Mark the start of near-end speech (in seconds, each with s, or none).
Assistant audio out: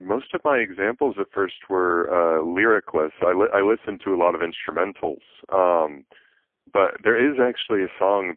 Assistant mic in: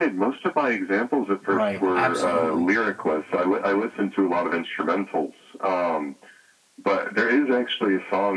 1.5 s